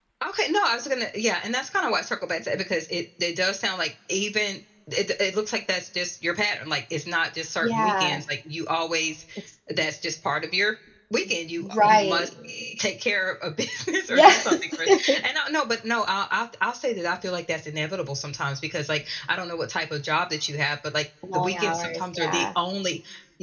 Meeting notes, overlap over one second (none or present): present